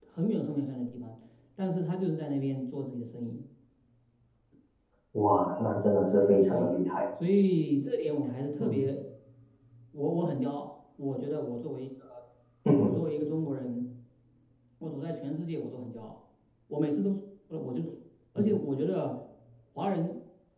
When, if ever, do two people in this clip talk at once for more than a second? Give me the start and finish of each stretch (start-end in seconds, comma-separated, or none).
none